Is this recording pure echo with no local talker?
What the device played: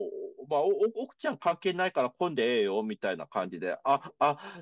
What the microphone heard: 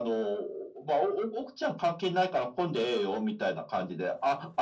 Yes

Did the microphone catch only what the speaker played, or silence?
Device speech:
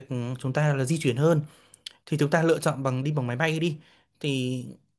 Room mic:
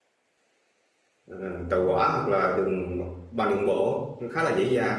No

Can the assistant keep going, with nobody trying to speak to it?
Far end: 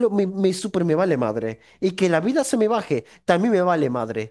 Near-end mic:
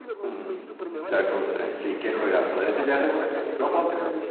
No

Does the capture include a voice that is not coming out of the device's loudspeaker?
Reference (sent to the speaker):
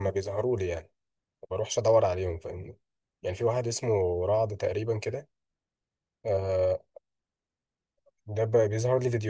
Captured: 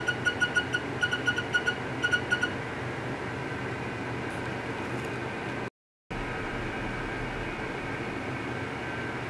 No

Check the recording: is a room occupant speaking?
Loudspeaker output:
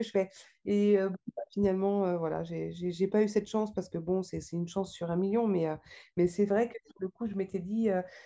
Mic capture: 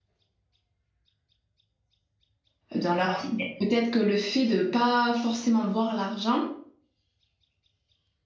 Yes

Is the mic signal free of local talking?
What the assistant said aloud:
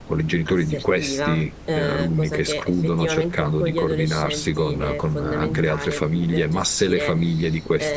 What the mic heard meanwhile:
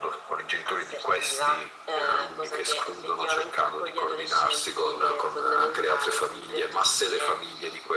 Yes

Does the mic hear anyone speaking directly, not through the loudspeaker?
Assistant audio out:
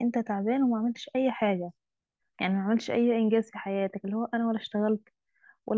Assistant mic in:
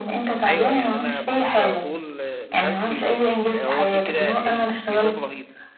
Yes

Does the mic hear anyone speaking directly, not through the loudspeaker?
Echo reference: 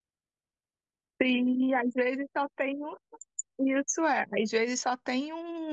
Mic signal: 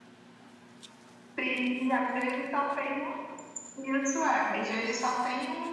No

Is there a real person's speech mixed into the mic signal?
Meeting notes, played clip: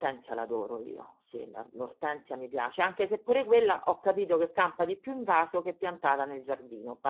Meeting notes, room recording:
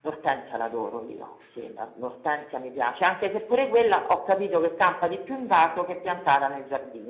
No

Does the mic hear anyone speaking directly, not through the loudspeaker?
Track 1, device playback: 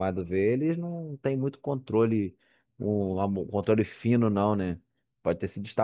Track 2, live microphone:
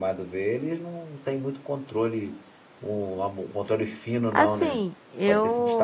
Yes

